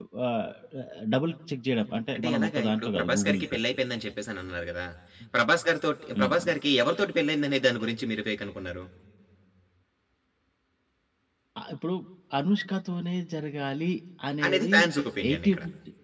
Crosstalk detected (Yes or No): Yes